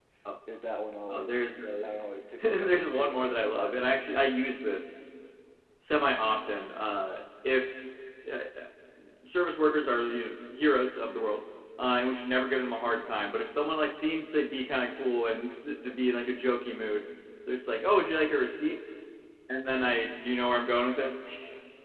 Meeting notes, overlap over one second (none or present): present